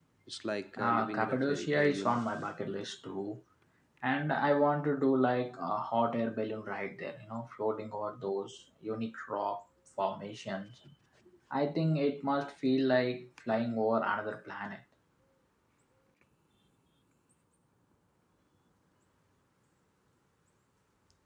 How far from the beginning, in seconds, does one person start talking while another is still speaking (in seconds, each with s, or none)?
0.8 s